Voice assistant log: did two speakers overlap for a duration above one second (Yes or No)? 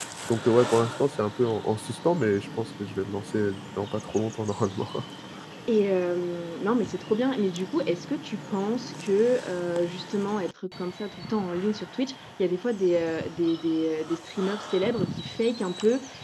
No